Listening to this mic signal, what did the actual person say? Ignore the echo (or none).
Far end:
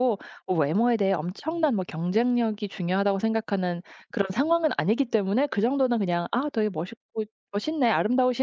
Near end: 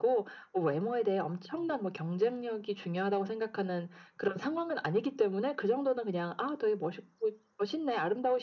none